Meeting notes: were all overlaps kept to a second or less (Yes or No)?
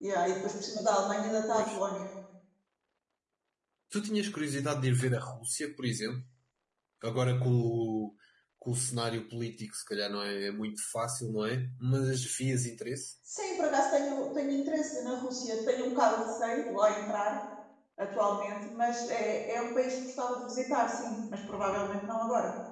Yes